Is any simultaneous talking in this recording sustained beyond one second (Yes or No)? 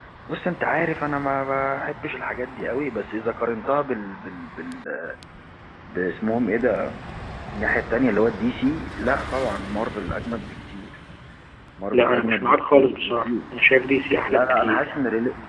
Yes